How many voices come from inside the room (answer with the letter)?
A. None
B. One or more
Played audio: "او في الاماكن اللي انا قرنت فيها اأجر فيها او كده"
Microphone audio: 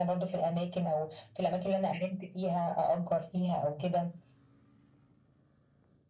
A